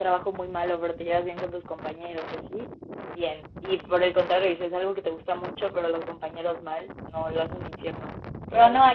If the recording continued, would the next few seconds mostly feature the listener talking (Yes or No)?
No